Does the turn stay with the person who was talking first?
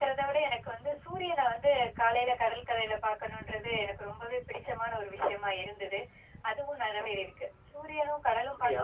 Yes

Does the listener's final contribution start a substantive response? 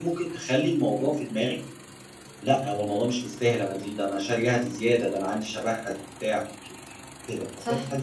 Yes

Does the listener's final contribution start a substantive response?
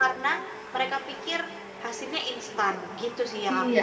Yes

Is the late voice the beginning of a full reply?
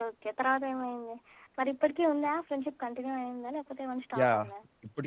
Yes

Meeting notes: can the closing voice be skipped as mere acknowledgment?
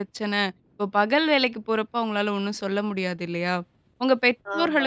Yes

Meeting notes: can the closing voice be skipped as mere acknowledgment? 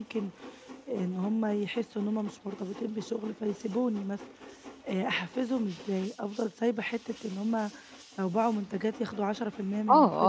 No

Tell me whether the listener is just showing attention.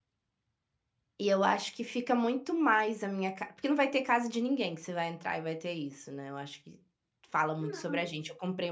Yes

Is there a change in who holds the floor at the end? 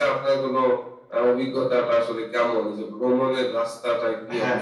Yes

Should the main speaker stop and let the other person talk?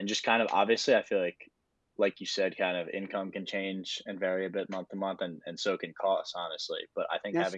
No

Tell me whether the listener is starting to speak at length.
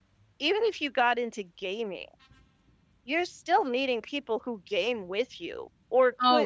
Yes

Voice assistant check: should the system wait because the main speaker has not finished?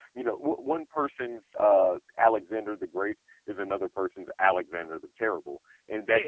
No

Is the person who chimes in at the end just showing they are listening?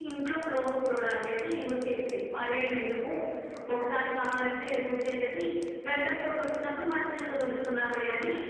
No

